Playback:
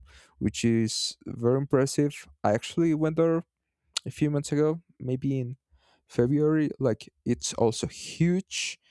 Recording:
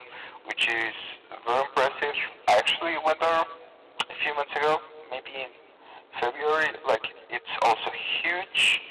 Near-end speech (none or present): none